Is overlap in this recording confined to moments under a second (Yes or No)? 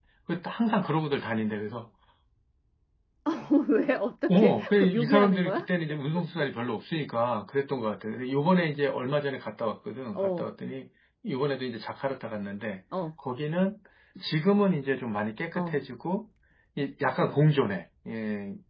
No